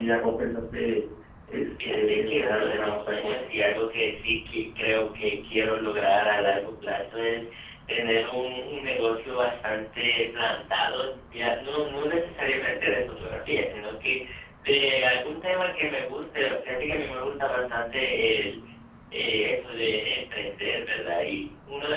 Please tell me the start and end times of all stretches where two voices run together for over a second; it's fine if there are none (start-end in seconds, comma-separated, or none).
1.8-3.5